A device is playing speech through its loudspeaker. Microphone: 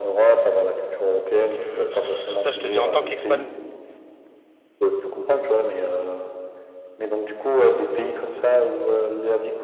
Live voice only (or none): Donc euh, sur sur ça je te dis, en tant qu'expat,